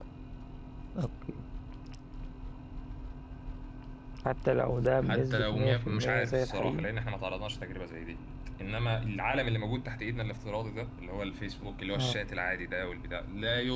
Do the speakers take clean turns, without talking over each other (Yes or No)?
No